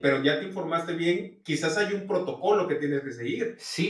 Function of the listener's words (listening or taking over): taking over